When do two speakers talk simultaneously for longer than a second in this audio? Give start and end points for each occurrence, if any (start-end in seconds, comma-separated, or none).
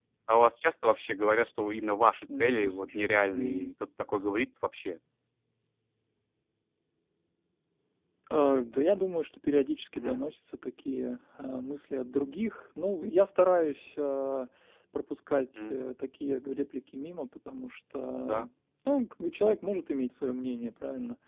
2.3-3.7